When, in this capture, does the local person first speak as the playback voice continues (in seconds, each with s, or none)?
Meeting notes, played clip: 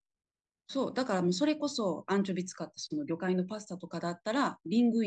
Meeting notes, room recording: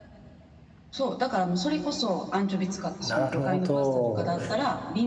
3.0 s